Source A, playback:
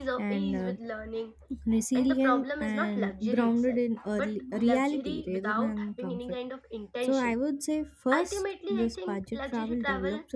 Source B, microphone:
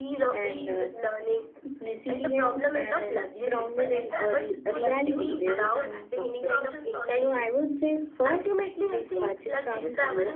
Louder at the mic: echo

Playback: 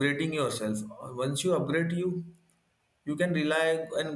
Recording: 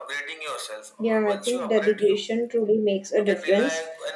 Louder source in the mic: user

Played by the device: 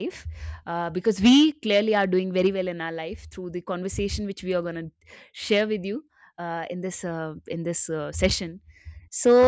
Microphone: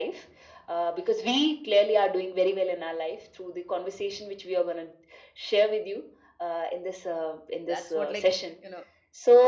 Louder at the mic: echo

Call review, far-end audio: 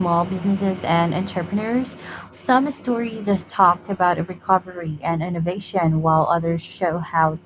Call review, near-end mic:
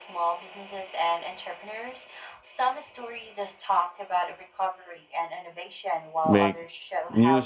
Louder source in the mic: user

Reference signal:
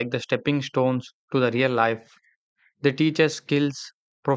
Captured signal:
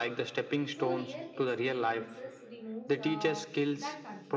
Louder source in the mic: echo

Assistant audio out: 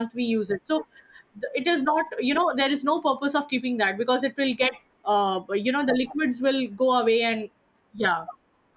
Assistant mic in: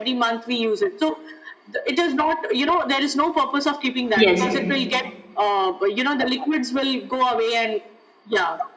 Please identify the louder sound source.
user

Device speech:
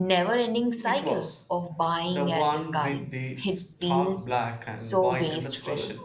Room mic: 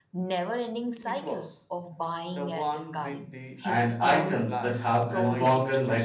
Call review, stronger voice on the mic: user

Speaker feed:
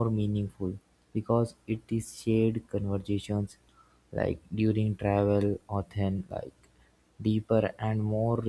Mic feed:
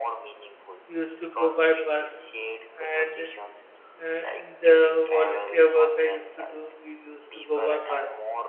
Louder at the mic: user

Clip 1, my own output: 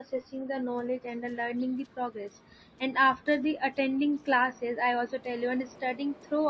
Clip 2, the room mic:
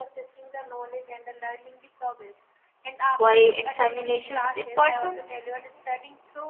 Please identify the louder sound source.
user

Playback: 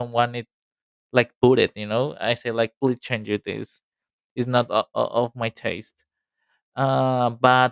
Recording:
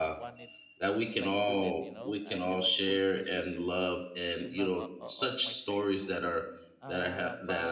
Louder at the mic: user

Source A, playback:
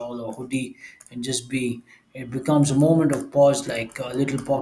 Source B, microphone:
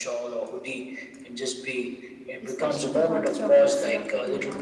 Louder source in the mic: echo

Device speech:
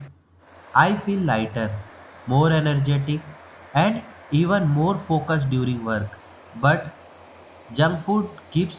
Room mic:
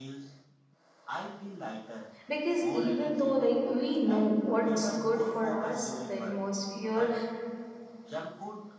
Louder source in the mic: user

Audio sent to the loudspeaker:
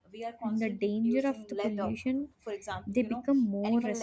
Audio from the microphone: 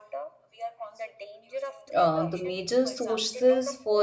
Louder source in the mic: user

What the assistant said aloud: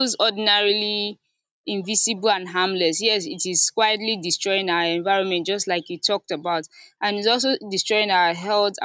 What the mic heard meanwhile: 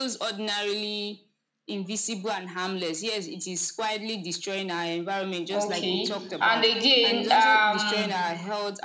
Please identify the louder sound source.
user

